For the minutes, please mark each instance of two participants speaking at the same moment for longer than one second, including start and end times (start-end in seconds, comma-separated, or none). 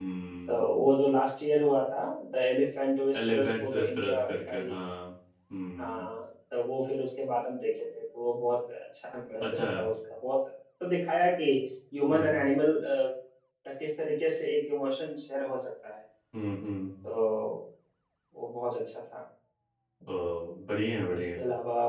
3.2-4.8